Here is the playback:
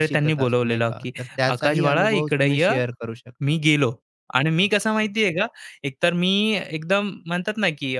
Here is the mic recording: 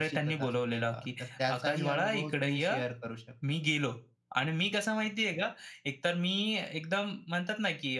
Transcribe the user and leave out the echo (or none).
none